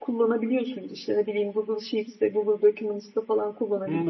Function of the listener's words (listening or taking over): taking over